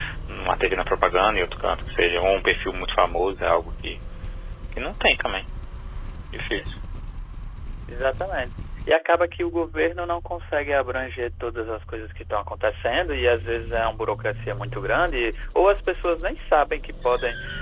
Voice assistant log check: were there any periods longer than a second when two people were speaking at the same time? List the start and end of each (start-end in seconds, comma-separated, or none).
none